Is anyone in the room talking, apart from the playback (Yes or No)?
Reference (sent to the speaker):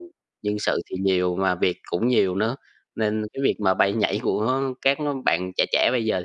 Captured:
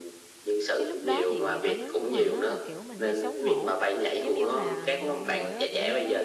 Yes